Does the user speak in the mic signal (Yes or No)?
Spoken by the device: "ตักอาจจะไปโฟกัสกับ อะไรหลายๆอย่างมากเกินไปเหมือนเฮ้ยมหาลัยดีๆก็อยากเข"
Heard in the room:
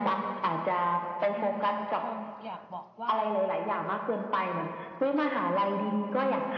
Yes